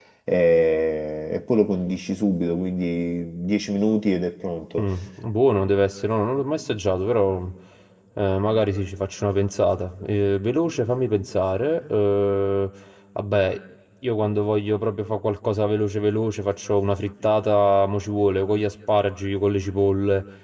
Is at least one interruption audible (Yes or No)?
No